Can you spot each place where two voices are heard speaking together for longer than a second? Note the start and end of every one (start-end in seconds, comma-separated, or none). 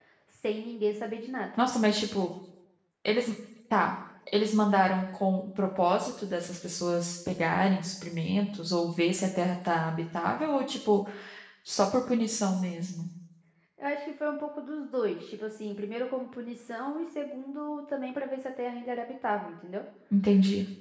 none